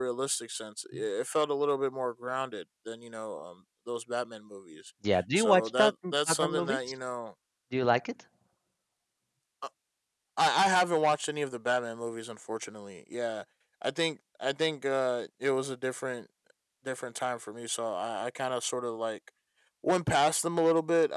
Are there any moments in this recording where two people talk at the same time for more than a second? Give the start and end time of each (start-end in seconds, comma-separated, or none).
5.4-6.8